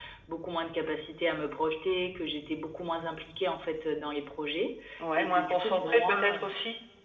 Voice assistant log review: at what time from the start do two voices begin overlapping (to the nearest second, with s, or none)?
5 s